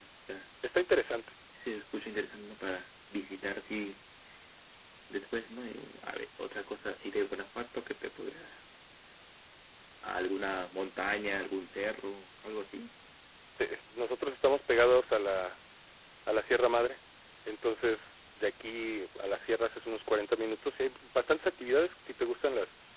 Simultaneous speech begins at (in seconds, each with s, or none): none